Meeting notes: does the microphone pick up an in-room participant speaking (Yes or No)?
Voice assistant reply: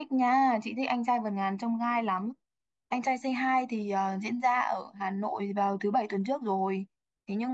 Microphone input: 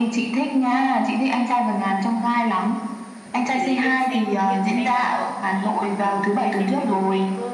Yes